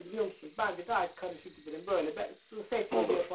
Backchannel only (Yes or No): Yes